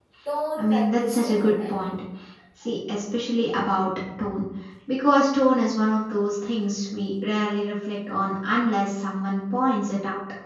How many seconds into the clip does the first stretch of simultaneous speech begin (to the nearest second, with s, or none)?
1 s